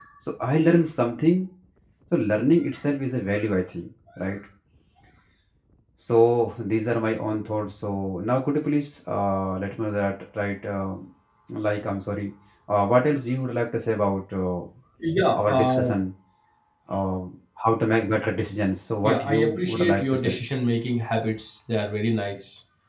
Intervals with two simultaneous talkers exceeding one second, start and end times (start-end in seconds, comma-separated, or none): 19.0-20.4